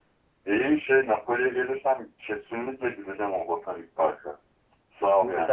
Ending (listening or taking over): taking over